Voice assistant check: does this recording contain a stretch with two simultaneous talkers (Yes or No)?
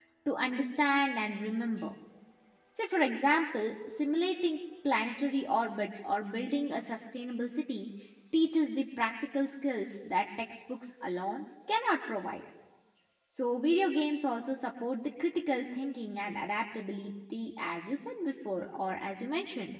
No